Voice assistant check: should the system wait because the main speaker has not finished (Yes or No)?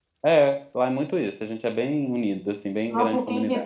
No